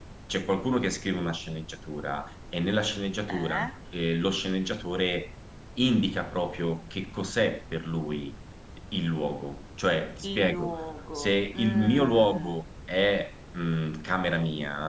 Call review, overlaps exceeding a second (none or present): present